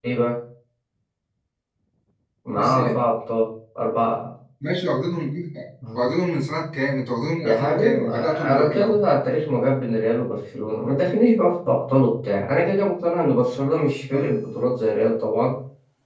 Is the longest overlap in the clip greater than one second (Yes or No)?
Yes